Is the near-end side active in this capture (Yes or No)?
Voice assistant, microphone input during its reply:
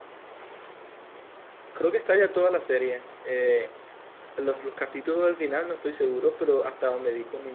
Yes